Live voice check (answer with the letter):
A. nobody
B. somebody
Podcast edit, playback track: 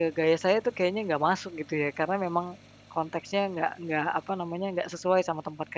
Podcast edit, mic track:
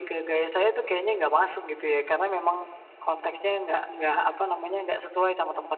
A